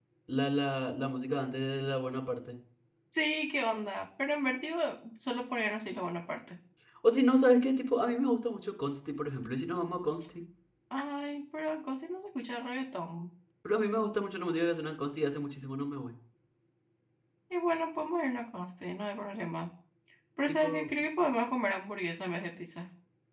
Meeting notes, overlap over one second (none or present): none